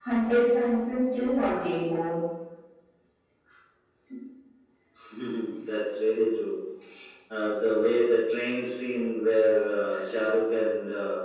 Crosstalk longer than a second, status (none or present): none